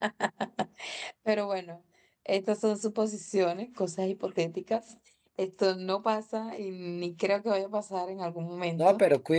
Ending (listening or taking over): taking over